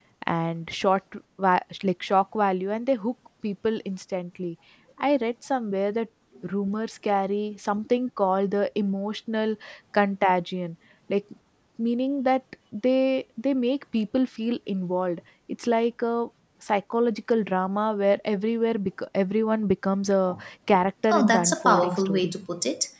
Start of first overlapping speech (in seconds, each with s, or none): 21.1 s